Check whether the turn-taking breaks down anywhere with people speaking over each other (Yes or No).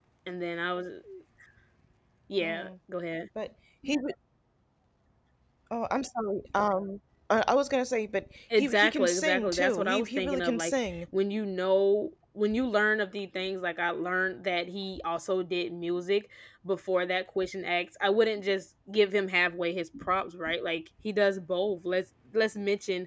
Yes